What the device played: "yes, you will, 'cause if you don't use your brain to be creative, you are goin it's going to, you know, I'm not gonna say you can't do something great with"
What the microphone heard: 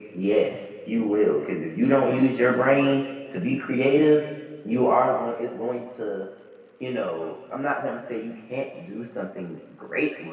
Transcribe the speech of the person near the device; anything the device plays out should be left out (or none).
none